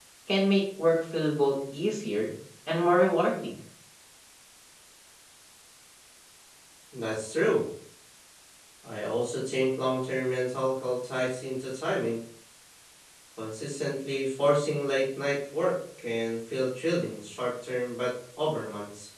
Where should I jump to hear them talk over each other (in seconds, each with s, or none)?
none